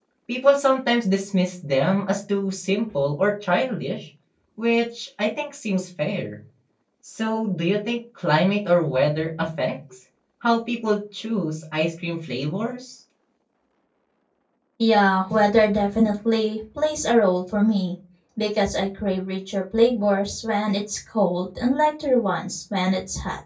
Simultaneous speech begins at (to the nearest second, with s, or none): none